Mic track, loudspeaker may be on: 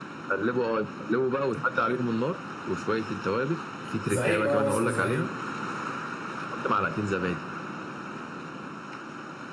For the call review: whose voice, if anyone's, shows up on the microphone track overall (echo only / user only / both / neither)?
both